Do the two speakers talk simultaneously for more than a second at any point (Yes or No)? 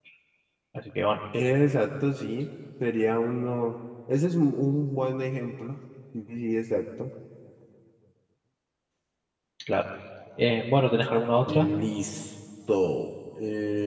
No